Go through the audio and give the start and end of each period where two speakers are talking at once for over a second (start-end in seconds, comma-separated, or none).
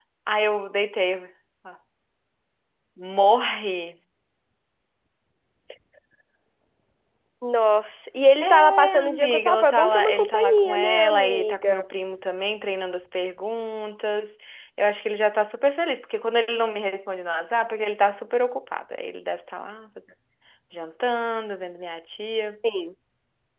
8.4-11.8